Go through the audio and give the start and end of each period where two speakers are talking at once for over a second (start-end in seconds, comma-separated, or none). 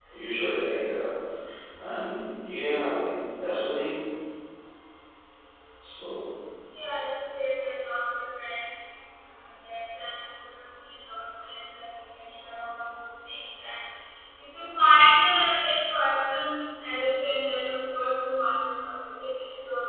none